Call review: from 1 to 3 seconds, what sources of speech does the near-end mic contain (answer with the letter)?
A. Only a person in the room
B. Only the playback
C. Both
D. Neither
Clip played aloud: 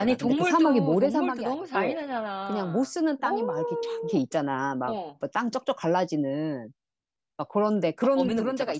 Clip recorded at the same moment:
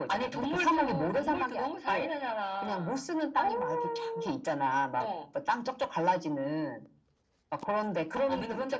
B